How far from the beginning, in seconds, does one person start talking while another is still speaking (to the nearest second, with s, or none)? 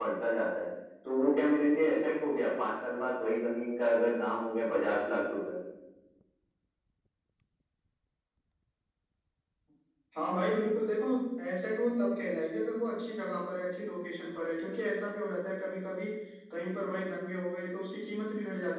none